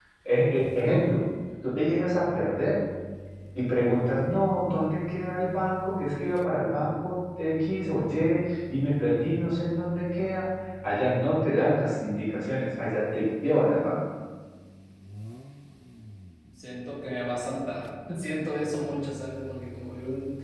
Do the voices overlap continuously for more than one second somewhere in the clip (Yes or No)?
No